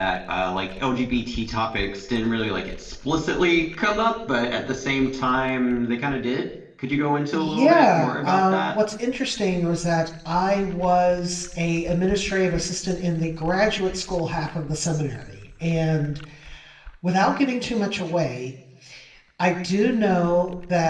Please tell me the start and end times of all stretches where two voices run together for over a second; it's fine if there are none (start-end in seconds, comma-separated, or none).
7.3-8.8